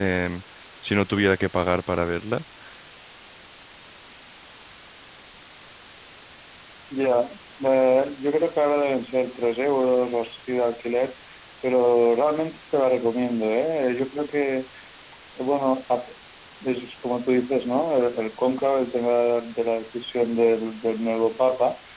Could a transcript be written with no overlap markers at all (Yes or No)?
Yes